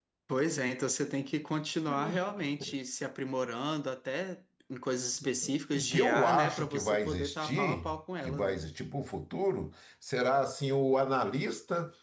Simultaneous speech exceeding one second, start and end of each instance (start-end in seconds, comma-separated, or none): 5.7-8.6